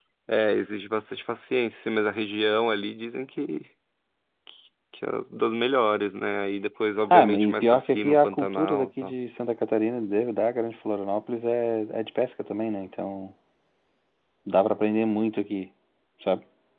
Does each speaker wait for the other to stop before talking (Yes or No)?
No